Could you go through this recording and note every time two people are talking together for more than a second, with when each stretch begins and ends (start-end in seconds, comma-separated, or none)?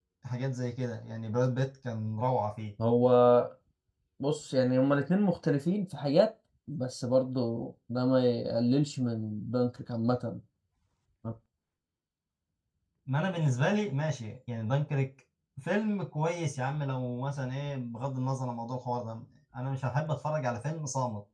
none